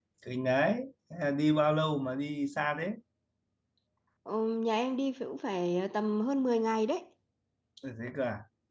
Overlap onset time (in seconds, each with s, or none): none